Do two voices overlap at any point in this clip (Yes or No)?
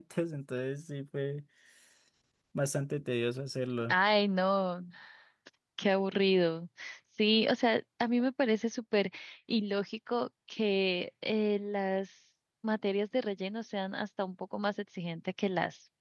No